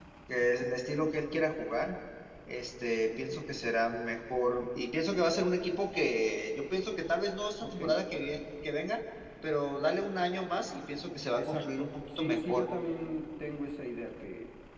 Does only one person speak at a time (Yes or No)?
No